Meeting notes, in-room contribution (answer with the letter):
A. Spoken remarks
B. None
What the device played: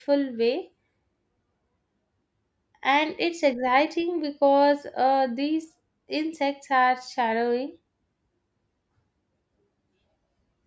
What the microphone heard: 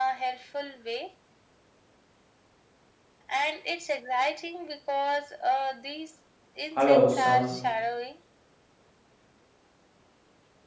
A